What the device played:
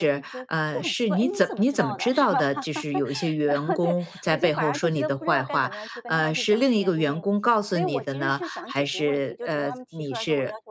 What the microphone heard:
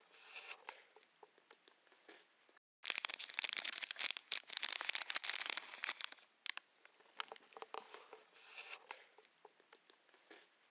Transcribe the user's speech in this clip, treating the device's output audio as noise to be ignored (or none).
none